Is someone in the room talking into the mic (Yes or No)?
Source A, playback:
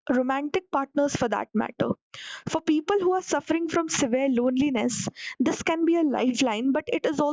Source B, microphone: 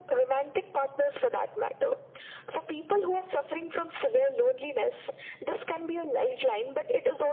No